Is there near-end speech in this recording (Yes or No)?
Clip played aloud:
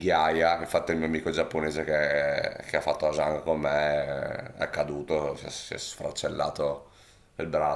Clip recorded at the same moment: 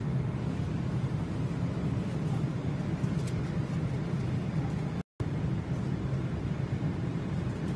No